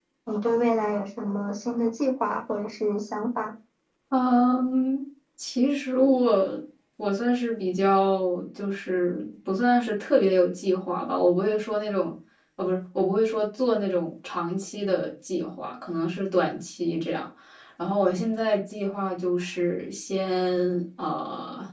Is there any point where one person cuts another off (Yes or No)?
No